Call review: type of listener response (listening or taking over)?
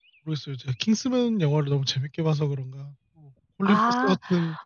taking over